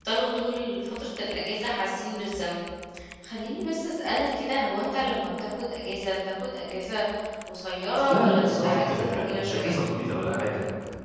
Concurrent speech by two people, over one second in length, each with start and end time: 8.1-9.8

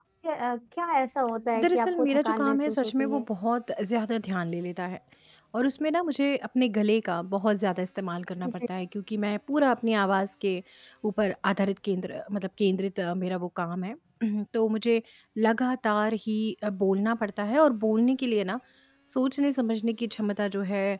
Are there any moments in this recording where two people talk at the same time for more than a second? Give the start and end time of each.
1.6-3.2

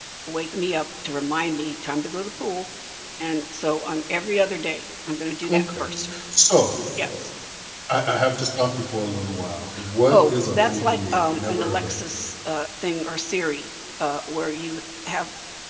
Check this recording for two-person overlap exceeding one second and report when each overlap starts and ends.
10.1-12.0

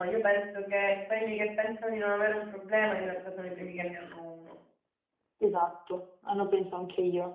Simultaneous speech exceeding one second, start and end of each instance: none

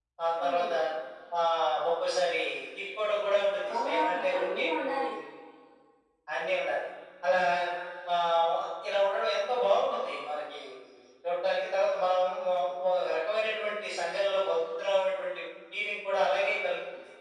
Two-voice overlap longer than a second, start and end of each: 3.7-4.9

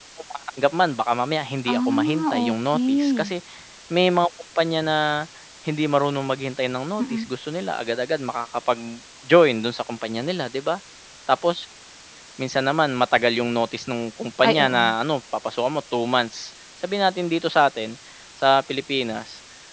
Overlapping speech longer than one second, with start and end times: 1.7-3.3

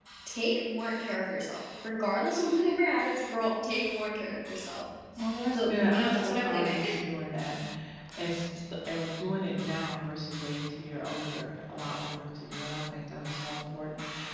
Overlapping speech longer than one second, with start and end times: 5.6-6.8

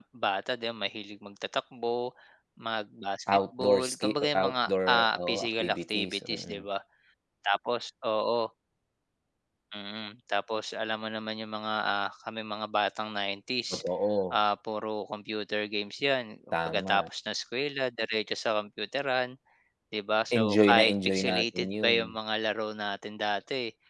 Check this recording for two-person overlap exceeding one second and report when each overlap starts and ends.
3.3-6.6, 20.4-22.0

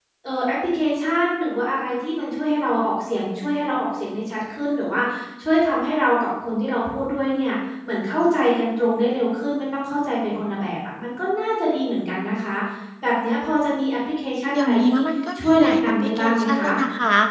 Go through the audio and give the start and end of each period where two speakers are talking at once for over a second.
15.4-16.7

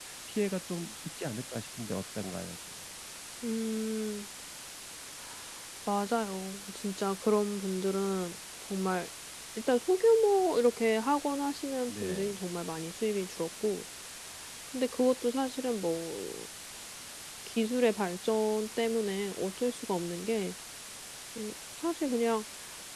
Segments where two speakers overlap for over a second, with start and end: none

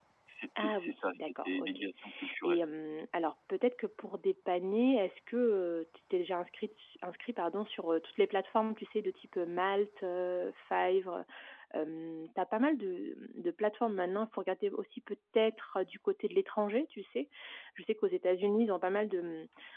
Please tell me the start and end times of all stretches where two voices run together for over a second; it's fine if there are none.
0.6-1.8

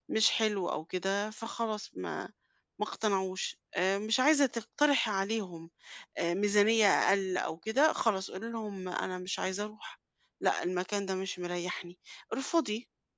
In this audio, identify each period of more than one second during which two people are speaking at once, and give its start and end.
none

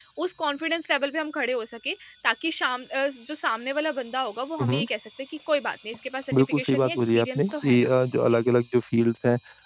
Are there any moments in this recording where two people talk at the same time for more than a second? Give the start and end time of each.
6.3-7.9

